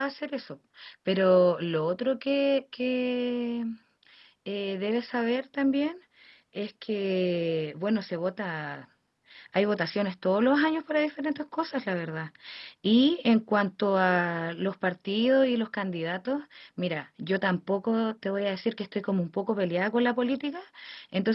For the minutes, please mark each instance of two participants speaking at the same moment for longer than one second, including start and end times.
none

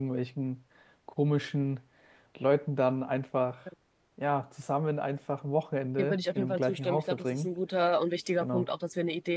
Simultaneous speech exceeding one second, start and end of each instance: 6.0-7.5

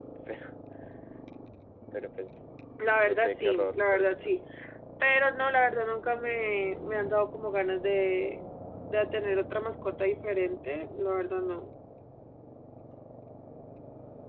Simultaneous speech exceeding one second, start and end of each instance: 3.0-4.4

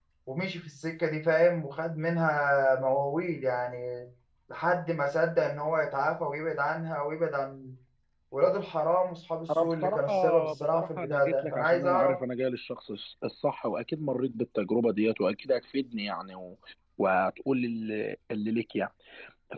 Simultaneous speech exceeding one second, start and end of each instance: 9.6-12.2

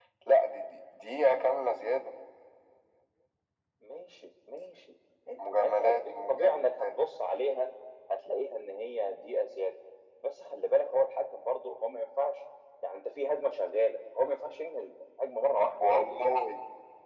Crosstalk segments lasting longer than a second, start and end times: 5.5-6.9

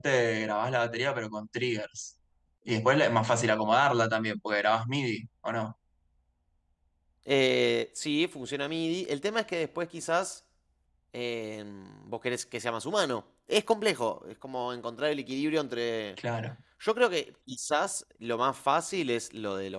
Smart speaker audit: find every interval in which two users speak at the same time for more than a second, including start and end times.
none

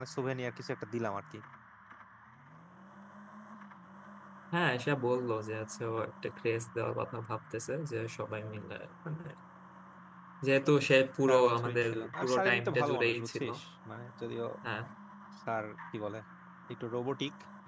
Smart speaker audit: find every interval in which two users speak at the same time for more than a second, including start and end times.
11.3-13.4

